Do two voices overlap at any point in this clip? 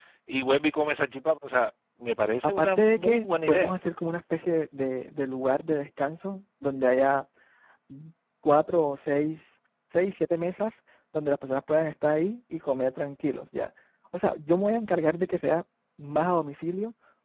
Yes, from 2.4 s

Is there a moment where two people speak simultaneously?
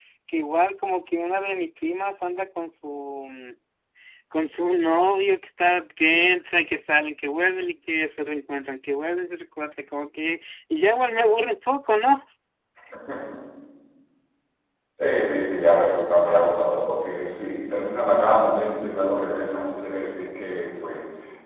No

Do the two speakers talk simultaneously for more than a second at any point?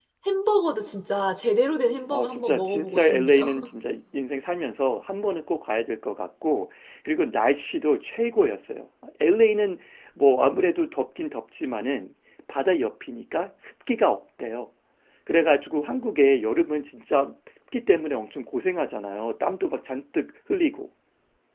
Yes, from 2.1 s

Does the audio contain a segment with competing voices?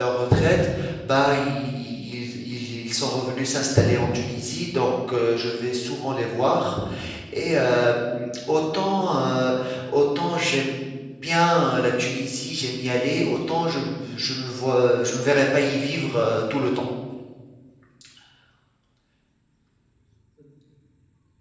No

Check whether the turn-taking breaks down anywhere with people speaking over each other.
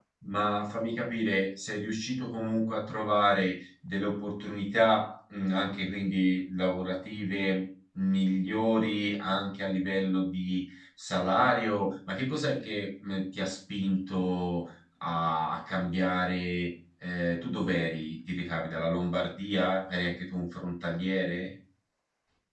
No

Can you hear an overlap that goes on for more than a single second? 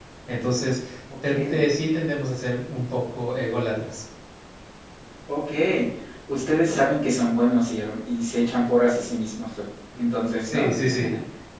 No

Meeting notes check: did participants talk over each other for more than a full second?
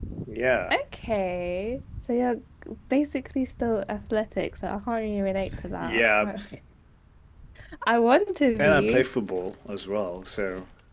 No

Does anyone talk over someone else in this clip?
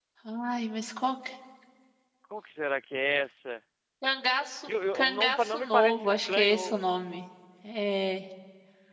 Yes, from 4.7 s

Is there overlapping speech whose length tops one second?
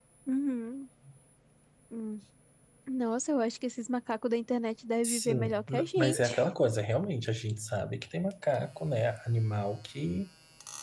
Yes, from 5.0 s

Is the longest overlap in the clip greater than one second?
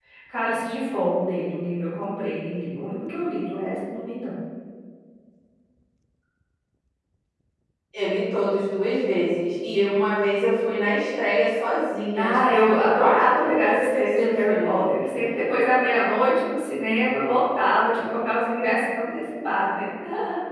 Yes, from 12.2 s

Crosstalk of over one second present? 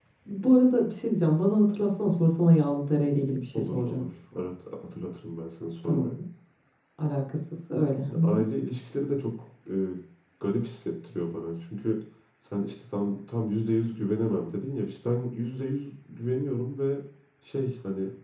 No

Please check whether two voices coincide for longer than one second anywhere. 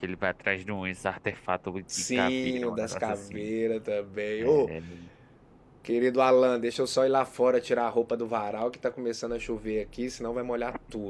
Yes, from 2.1 s

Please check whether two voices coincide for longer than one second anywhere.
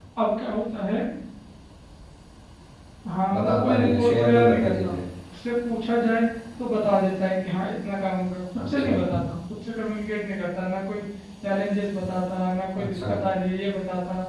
Yes, from 3.3 s

